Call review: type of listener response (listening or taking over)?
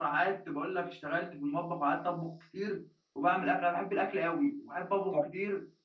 taking over